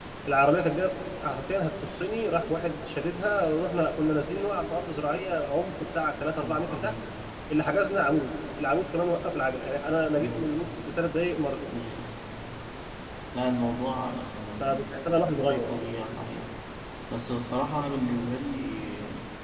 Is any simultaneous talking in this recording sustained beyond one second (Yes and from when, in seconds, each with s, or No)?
No